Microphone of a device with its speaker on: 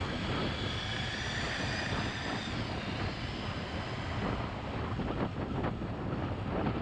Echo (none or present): none